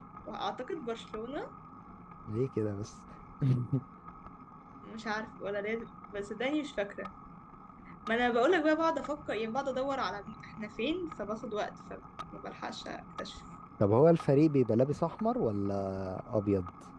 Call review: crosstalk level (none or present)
none